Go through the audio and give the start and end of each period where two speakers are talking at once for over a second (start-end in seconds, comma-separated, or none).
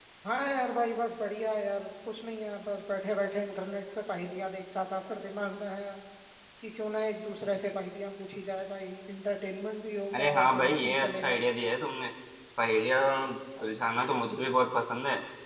10.1-11.4